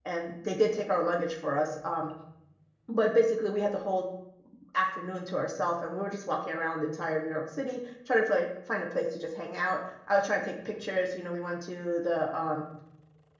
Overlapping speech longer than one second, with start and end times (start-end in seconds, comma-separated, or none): none